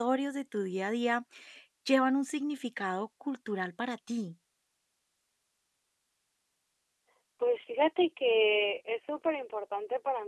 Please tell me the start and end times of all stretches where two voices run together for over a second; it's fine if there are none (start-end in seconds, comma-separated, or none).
none